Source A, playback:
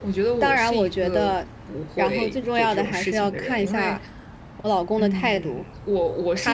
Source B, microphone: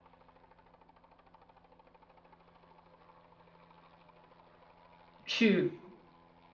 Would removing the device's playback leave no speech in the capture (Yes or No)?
No